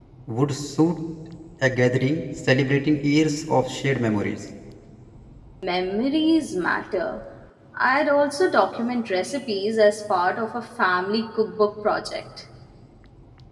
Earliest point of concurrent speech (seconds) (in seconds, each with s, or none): none